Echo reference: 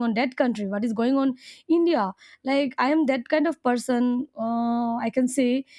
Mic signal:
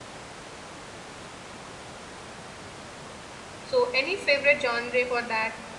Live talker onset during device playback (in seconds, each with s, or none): 3.6 s